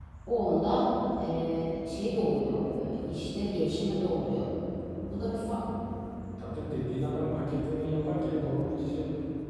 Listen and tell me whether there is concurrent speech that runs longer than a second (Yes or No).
No